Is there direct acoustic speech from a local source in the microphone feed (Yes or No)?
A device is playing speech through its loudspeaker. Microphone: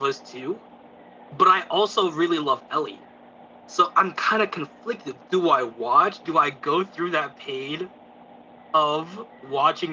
No